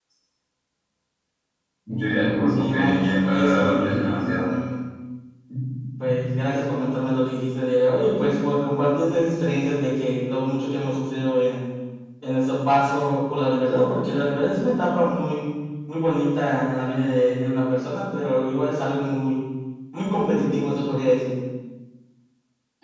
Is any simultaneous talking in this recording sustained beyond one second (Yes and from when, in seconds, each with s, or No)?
Yes, from 2.5 s